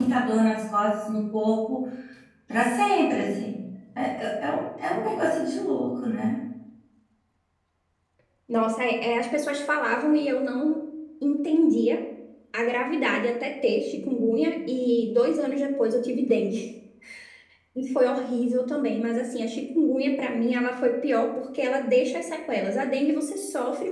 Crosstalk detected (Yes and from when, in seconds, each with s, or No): No